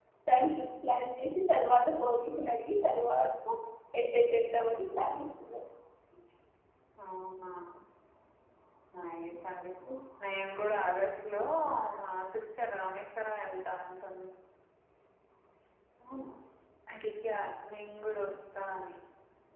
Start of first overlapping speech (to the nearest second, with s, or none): none